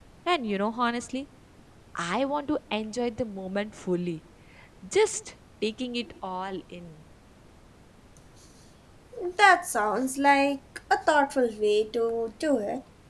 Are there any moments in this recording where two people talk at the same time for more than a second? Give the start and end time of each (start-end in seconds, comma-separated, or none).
none